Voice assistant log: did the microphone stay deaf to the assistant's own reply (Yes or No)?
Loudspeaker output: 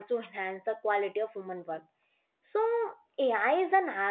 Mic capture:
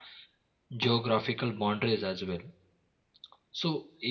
Yes